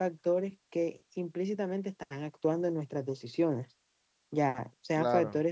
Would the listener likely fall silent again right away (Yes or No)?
Yes